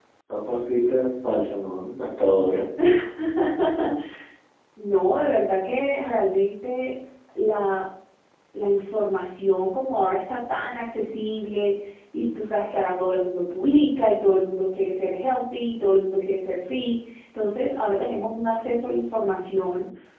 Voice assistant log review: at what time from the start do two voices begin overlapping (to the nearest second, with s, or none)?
none